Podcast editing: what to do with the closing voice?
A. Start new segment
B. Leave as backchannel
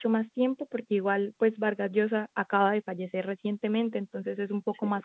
B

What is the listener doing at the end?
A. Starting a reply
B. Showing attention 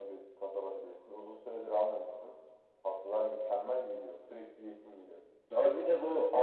A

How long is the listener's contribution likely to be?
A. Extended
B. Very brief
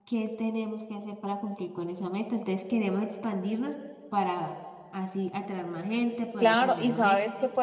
A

